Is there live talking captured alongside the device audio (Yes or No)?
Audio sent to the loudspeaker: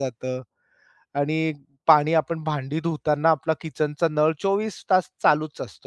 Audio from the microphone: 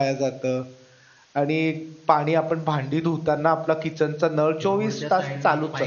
Yes